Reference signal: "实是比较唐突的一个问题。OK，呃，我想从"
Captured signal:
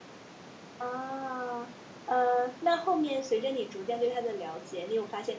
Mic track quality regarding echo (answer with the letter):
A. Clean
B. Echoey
A